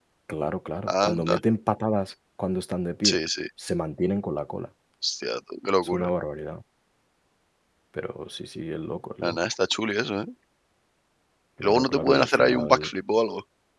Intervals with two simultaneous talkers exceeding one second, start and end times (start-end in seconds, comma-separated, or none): 11.6-12.9